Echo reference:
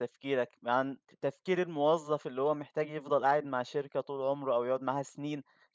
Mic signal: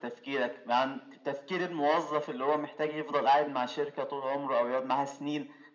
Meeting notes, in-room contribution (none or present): none